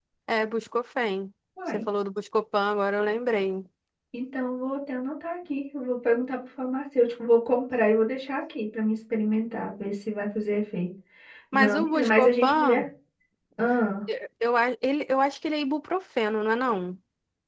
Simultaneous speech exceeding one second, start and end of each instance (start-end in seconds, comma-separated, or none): 11.5-12.8